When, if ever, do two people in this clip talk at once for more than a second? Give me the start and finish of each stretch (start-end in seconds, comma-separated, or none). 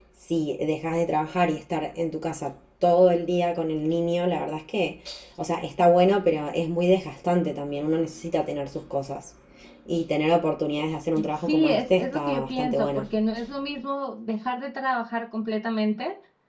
11.4-13.0